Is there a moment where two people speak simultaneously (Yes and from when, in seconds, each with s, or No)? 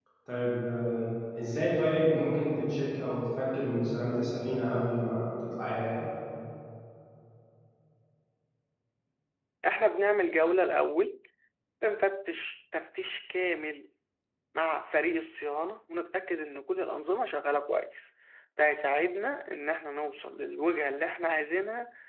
No